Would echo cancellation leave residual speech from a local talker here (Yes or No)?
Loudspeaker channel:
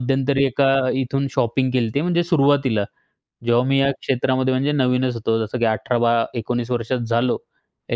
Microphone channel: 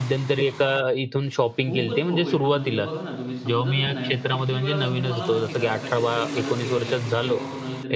Yes